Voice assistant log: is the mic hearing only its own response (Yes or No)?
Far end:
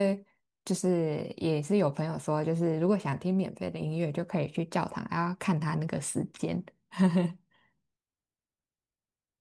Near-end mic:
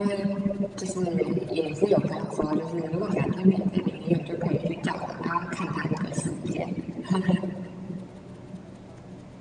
Yes